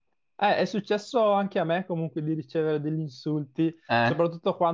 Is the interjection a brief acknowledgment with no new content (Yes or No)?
Yes